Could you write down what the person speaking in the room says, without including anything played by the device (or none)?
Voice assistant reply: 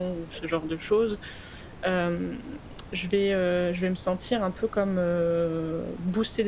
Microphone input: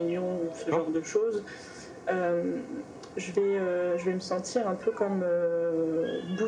d'accord?